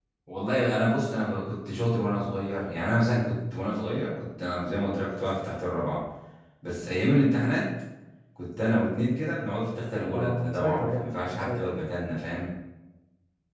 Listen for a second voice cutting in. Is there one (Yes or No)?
Yes